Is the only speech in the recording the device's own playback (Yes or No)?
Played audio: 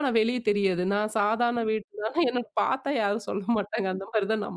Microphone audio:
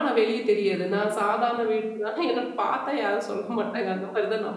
Yes